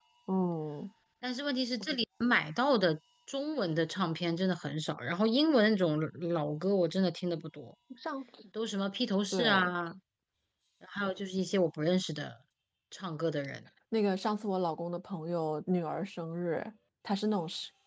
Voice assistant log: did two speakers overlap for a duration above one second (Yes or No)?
No